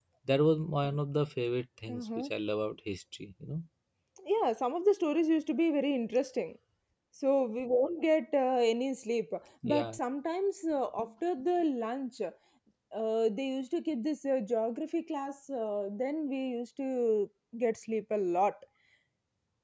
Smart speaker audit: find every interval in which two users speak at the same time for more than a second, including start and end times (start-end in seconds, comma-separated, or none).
none